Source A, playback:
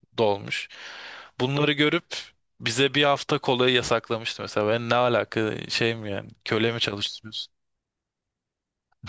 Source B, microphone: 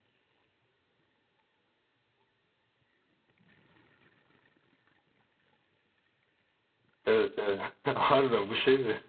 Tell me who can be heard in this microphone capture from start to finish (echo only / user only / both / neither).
user only